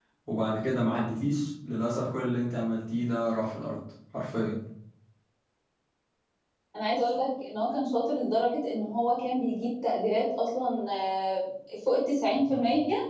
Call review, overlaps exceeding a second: none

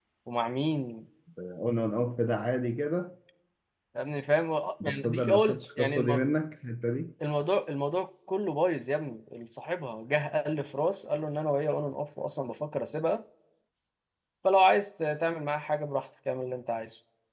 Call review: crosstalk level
present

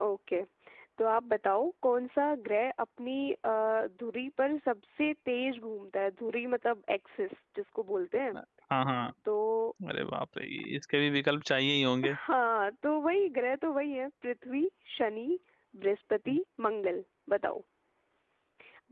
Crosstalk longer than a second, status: none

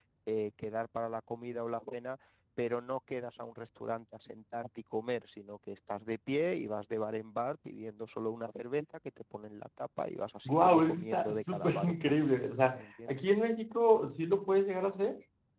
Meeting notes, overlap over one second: present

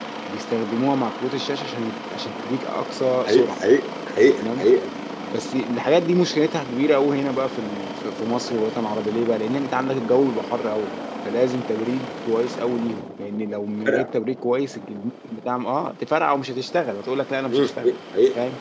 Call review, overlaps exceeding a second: none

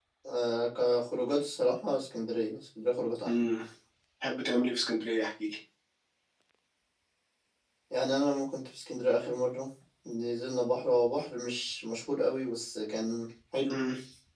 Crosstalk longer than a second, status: none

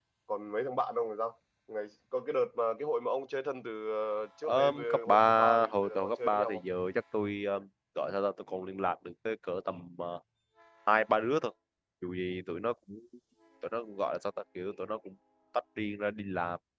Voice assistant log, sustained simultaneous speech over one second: present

